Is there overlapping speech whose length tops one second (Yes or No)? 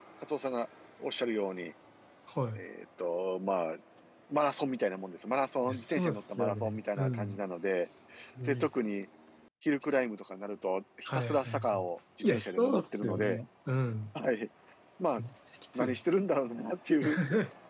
Yes